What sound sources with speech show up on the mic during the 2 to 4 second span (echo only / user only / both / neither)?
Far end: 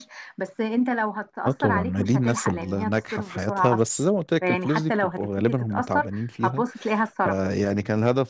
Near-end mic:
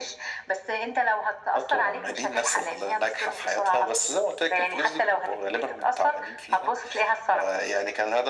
echo only